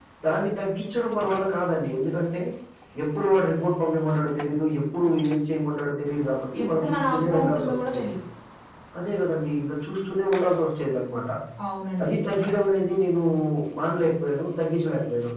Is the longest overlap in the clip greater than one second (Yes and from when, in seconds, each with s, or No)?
Yes, from 6.5 s